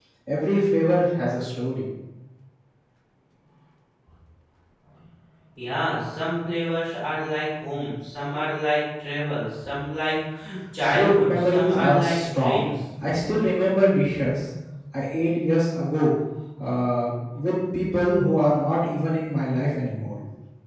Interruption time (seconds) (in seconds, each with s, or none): 10.9 s